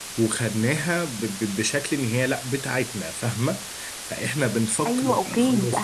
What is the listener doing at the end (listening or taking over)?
taking over